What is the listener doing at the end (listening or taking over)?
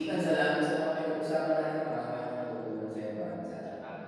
taking over